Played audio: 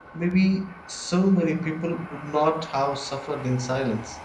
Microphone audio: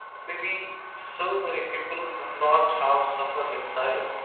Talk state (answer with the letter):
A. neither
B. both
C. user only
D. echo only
D